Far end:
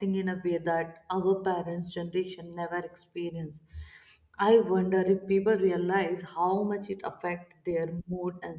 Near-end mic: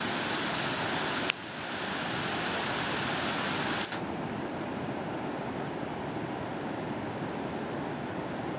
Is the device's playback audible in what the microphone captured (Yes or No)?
No